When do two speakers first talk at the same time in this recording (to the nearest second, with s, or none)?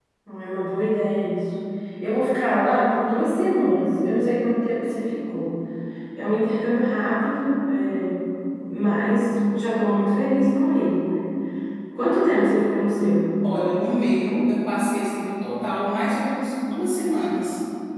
none